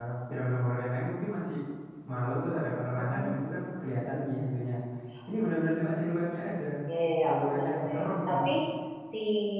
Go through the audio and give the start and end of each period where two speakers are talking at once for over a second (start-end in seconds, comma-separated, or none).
7.2-8.5